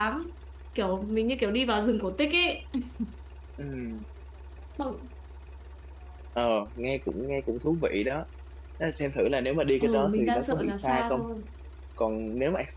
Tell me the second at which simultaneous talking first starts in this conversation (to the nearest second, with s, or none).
10 s